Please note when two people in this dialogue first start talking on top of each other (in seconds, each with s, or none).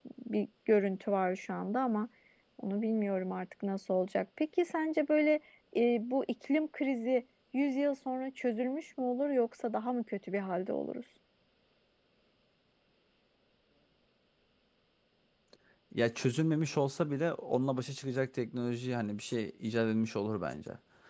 none